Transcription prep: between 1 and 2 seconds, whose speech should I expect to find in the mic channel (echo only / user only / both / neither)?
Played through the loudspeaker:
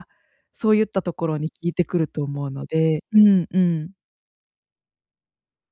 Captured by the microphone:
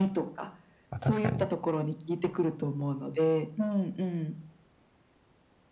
both